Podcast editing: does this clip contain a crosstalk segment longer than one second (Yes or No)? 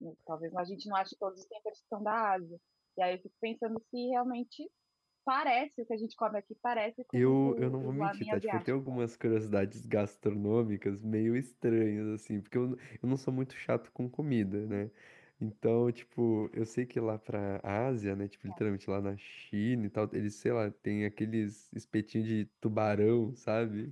Yes